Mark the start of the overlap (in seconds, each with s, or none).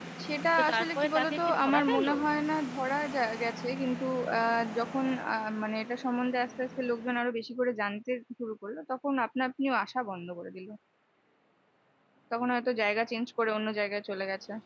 0.6 s